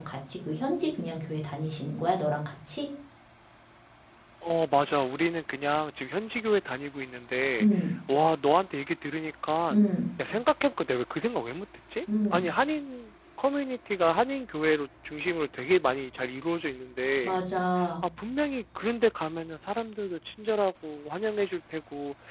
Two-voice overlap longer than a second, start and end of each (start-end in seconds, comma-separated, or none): none